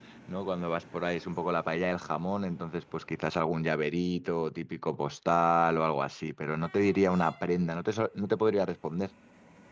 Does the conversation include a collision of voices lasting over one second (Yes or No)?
No